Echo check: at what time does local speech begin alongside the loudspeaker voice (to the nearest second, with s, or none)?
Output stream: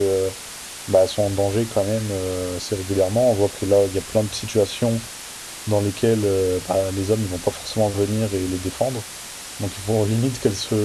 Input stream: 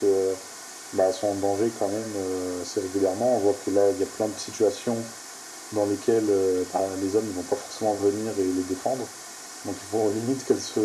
none